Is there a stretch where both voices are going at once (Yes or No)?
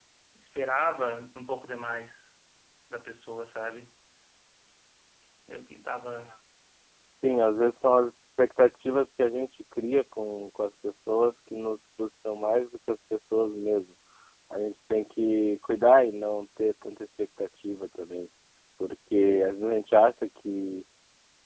No